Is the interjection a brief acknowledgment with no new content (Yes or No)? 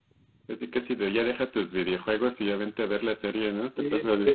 No